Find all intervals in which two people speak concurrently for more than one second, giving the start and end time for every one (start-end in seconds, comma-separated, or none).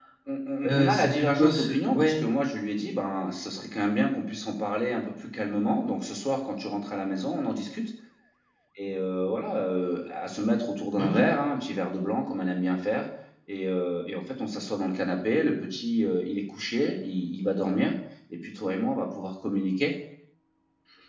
0.6-2.1